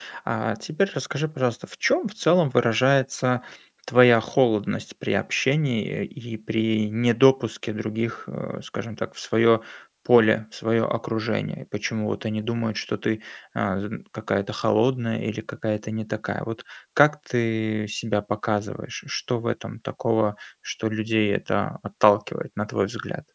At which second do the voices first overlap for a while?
none

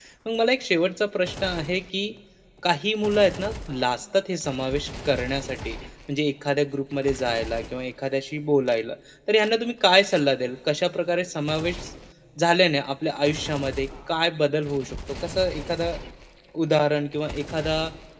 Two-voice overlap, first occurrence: none

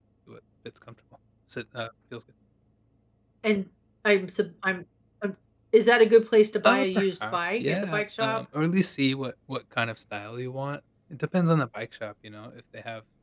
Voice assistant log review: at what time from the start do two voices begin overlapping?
6.6 s

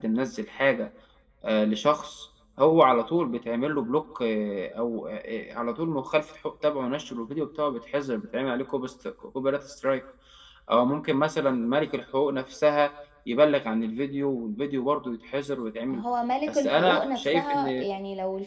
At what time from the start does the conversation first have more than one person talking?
16.5 s

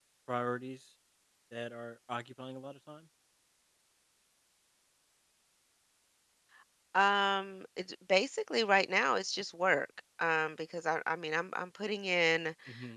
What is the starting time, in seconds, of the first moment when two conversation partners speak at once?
none

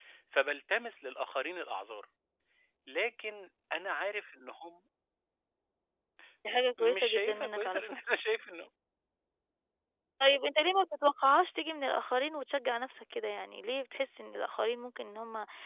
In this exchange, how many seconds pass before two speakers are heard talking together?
6.5 s

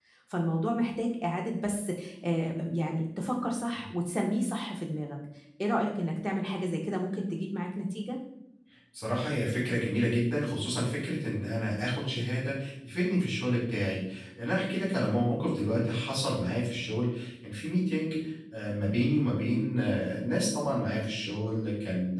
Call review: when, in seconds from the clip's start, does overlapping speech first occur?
none

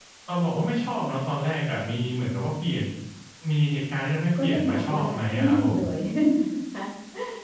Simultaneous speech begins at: 4.3 s

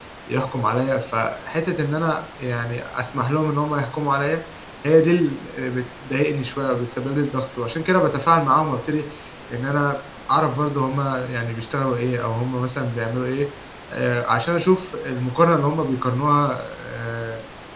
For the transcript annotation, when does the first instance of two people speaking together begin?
none

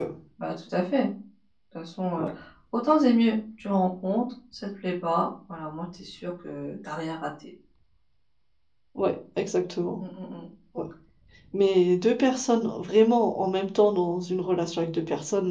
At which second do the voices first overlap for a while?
none

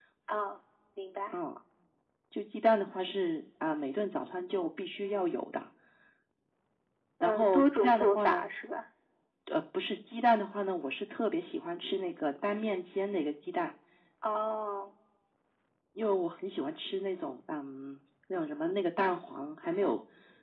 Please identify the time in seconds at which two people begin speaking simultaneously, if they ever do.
7.2 s

